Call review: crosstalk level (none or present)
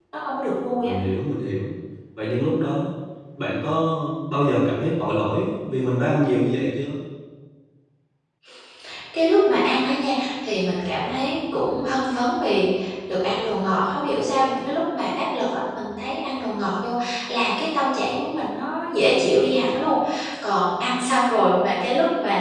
none